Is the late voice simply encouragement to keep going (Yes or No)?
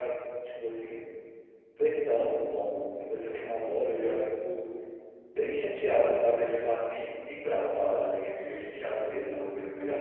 Yes